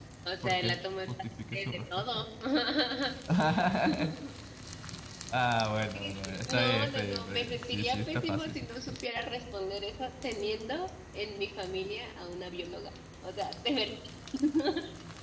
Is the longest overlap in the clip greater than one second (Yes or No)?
Yes